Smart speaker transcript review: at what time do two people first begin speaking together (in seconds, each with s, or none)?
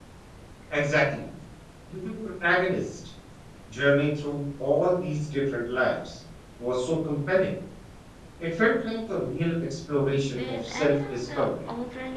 10.3 s